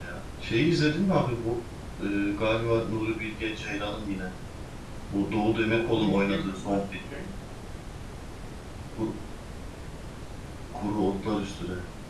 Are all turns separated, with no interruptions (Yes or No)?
No